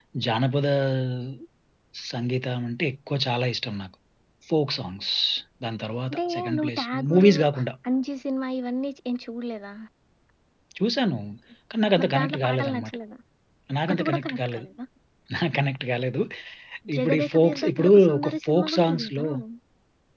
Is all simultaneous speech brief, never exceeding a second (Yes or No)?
No